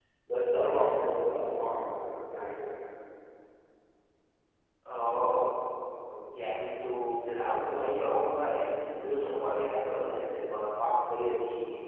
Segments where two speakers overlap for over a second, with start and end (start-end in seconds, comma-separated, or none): none